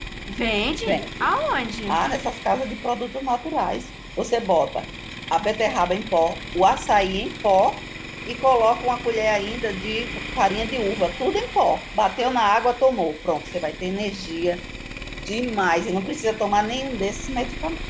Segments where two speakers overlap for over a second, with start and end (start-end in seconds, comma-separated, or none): none